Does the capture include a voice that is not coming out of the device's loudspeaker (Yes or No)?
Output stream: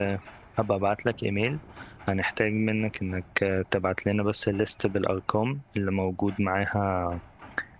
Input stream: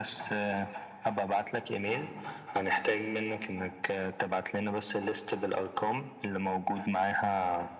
No